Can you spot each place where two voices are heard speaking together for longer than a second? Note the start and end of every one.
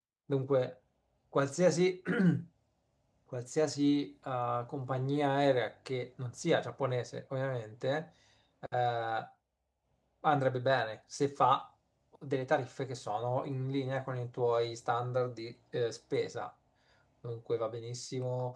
none

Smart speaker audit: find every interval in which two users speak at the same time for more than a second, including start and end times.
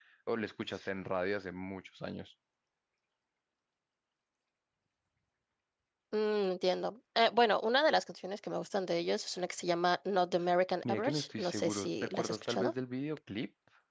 10.8-12.7

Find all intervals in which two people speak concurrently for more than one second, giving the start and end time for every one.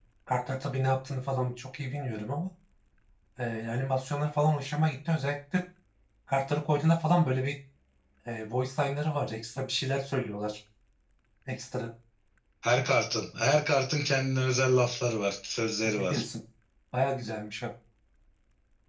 none

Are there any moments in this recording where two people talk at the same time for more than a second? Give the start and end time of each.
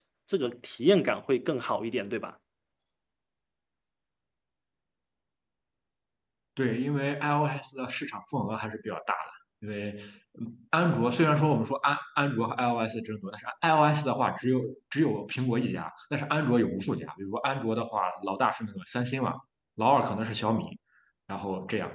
none

